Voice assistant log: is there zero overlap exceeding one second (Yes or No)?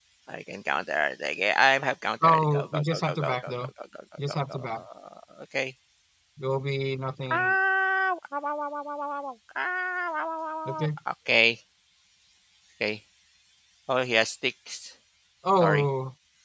No